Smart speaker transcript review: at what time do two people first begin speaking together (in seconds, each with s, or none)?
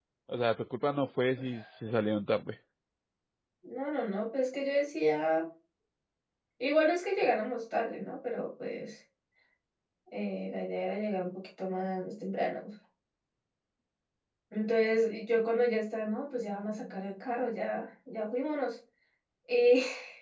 none